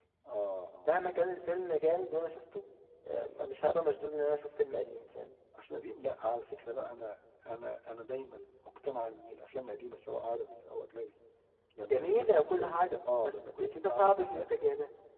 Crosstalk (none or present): present